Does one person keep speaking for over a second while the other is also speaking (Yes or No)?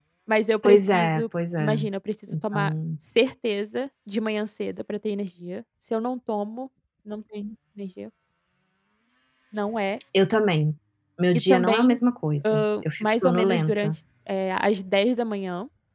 Yes